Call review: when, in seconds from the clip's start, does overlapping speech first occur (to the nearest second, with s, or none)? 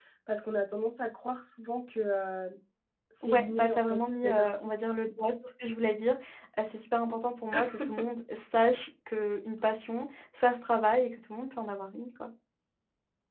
3 s